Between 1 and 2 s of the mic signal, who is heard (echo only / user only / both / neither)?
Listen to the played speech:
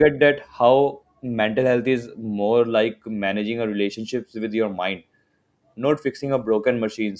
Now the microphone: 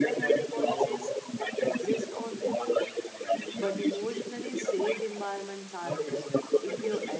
both